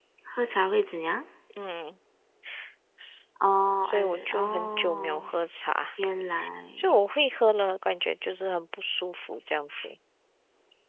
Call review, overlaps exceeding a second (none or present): present